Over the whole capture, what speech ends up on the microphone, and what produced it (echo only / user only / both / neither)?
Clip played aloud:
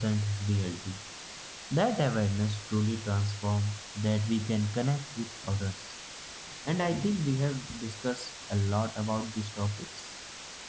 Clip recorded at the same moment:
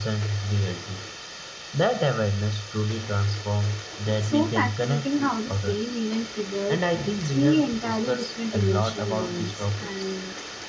both